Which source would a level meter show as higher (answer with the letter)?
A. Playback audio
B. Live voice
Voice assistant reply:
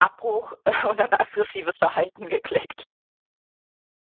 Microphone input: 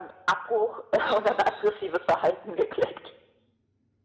A